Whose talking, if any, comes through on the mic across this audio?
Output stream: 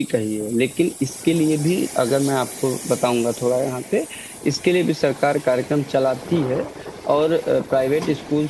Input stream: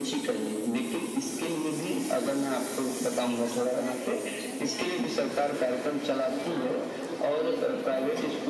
both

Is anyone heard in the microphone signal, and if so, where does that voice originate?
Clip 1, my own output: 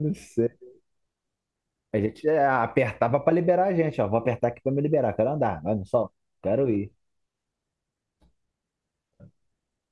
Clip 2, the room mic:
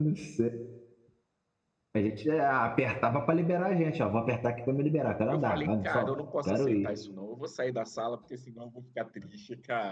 both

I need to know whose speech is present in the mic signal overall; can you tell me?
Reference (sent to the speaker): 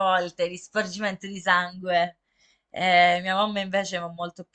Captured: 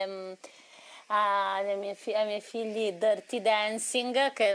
user only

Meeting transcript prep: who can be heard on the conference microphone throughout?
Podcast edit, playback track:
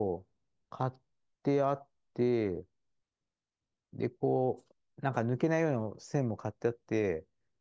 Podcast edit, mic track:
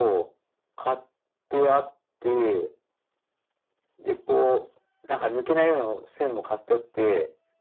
echo only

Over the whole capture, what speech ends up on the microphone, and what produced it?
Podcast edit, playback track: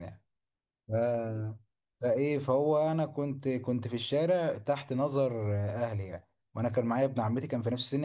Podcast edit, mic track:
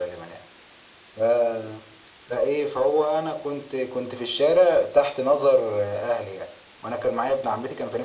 echo only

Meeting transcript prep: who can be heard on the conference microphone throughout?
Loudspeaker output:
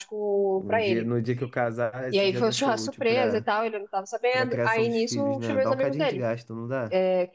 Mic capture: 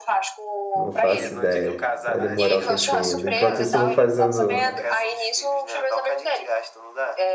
both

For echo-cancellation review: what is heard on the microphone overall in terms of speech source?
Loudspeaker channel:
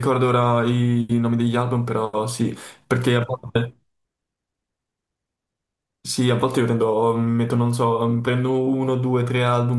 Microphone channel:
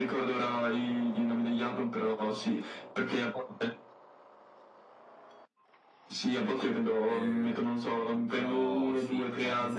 both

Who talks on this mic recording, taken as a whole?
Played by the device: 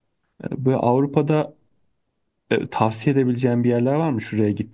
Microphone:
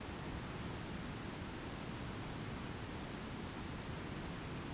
neither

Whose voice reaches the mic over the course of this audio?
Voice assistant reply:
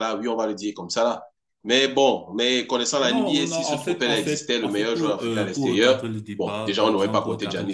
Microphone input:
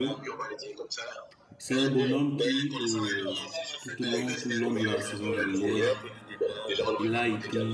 both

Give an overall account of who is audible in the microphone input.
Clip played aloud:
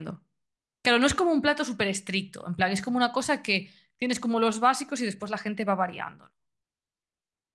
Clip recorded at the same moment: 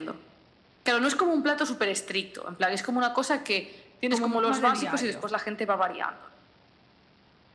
both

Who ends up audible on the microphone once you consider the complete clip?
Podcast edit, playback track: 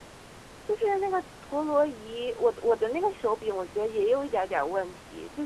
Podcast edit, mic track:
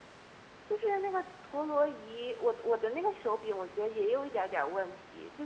echo only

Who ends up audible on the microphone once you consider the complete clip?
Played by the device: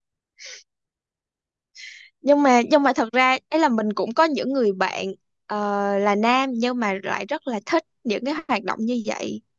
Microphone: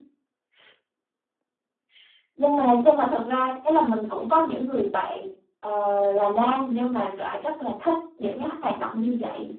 echo only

